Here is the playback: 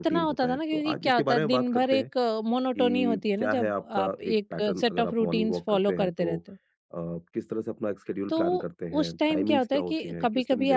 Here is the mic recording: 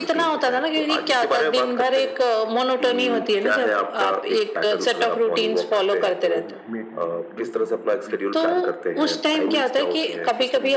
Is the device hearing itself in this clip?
Yes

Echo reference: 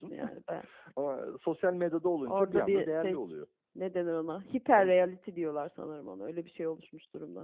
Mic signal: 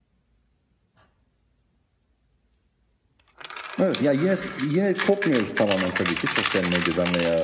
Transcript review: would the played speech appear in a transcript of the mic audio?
No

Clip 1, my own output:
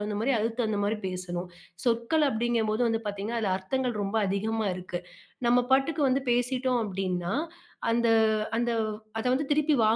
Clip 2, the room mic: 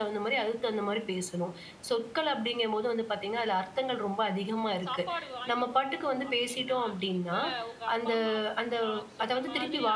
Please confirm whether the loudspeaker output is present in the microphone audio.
Yes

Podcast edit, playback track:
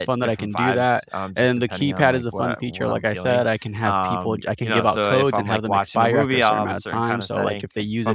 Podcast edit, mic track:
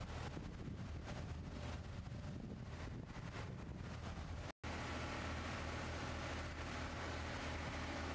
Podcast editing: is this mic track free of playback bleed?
Yes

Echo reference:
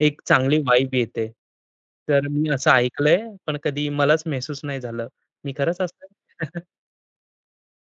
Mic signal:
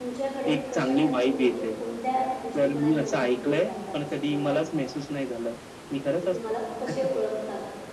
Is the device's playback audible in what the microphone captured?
Yes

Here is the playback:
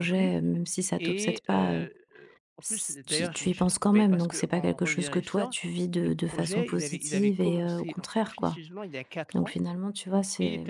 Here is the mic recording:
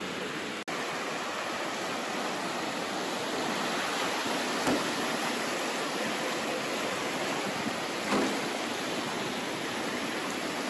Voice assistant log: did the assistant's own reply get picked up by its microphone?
No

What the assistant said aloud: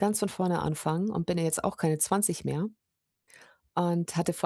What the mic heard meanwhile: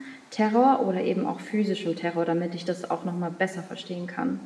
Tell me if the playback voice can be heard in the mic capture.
No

